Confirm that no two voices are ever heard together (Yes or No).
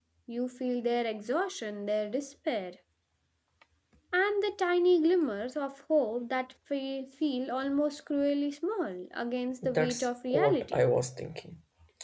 No